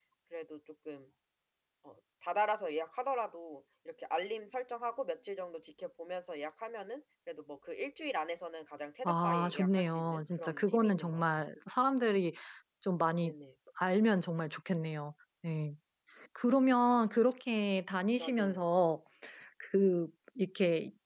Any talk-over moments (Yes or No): Yes